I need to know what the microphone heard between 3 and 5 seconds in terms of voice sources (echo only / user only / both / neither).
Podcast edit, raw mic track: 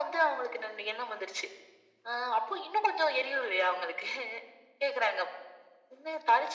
echo only